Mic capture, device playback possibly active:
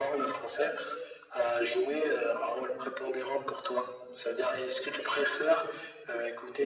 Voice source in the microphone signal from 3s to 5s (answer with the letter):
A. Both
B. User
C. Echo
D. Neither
C